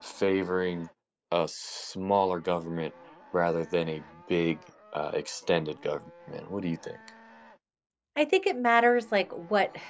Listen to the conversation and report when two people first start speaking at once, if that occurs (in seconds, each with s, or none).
none